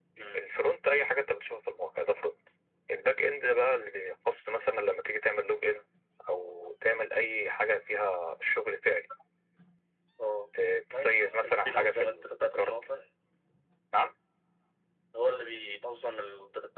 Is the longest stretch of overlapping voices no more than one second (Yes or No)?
No